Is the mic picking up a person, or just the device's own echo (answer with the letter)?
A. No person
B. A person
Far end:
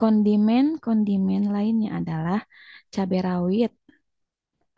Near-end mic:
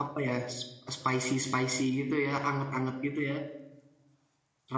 B